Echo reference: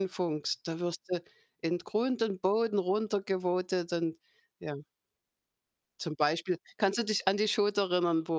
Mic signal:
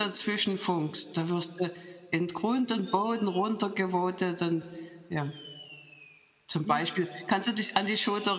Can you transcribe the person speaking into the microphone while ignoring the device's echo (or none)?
Mhm.